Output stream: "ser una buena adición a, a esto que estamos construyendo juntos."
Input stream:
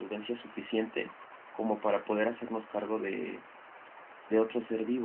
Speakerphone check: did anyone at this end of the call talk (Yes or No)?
Yes